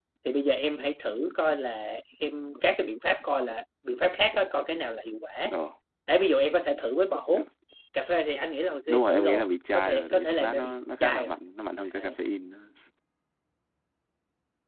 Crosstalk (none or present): present